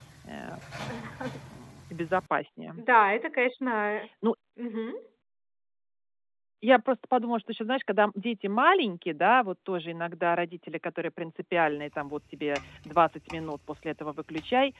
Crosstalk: none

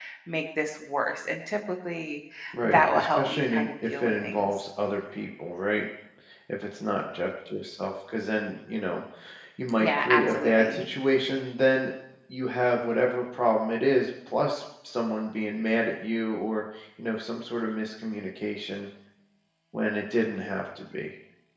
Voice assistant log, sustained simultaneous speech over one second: present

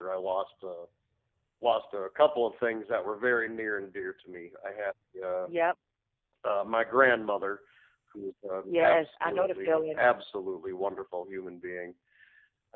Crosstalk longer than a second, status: present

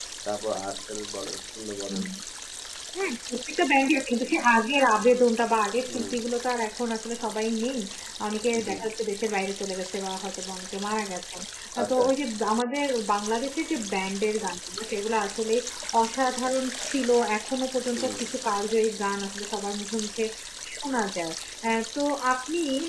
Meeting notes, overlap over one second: none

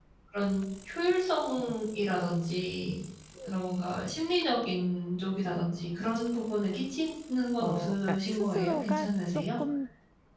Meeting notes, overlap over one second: present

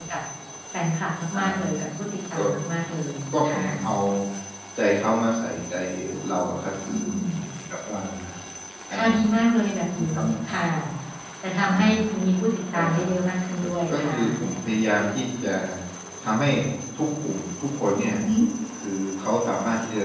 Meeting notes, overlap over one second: none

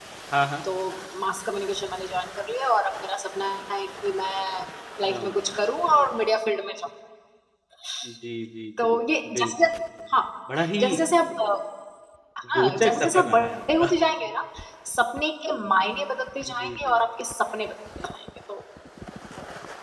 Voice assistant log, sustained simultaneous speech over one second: present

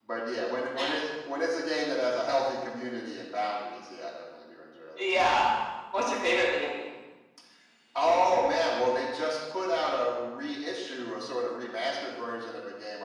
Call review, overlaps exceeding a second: none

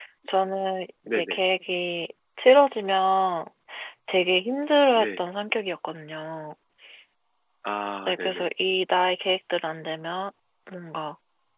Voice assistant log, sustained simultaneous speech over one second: none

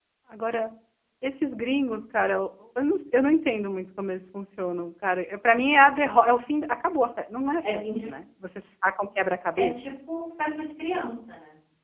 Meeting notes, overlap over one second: none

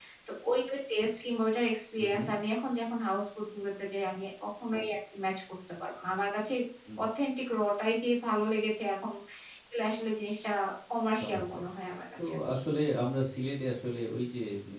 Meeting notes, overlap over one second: none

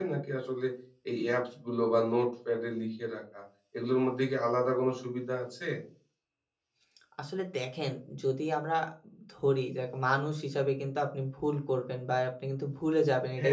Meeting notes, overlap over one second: none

